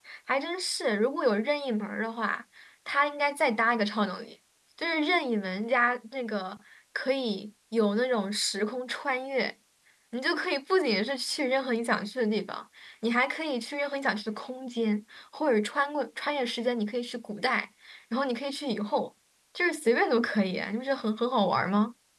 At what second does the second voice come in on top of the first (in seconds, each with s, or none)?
none